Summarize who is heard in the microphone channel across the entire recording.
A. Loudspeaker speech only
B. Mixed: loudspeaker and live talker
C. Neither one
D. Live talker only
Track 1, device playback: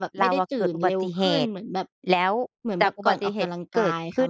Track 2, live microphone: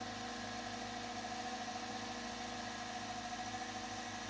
C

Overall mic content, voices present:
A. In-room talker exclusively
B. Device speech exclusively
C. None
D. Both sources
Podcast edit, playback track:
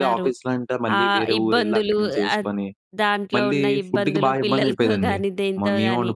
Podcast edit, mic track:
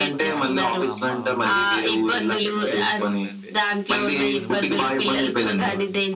D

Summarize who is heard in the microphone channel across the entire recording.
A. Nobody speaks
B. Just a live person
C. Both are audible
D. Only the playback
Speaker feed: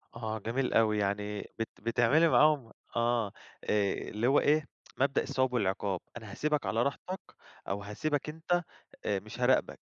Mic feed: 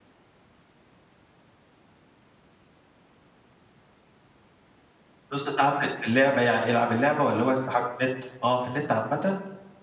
B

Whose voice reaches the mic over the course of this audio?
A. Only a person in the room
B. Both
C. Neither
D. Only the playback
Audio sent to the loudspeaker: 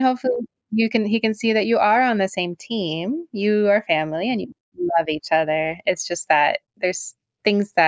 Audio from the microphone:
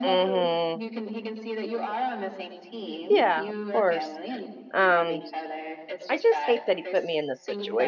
B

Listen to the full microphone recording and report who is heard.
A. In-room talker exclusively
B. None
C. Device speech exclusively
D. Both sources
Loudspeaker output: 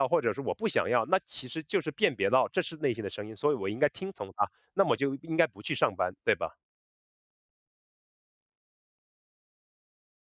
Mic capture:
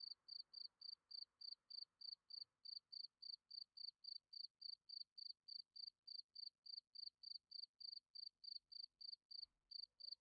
B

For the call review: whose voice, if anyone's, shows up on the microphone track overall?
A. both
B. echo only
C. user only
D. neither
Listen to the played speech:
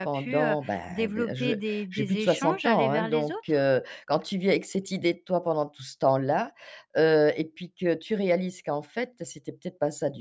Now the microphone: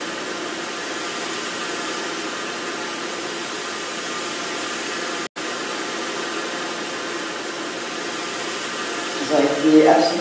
C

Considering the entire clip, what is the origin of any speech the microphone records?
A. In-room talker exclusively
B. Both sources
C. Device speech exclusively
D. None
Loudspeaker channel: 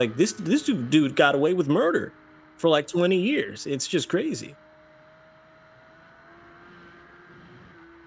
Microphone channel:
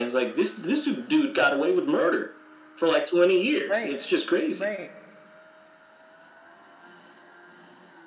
B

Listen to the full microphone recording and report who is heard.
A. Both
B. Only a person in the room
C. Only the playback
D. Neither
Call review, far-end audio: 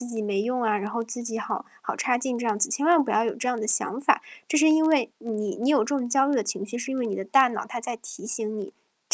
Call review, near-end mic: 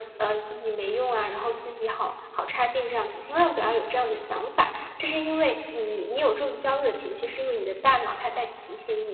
C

